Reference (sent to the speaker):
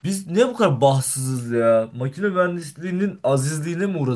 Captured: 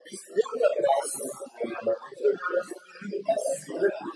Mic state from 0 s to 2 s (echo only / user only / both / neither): echo only